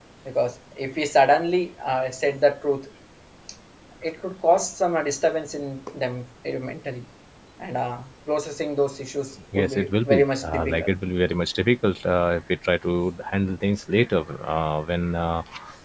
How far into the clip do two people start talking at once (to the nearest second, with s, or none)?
10 s